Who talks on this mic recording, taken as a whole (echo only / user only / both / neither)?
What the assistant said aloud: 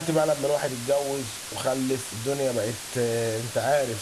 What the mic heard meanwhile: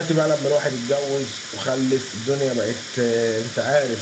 echo only